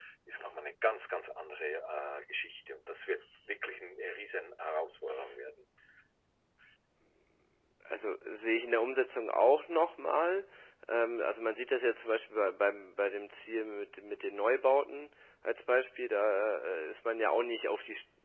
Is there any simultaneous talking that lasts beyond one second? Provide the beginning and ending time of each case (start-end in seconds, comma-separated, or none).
none